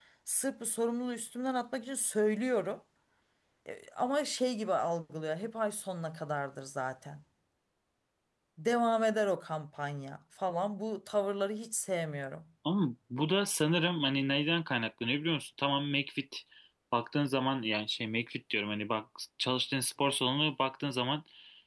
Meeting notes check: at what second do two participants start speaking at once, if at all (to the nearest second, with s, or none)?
none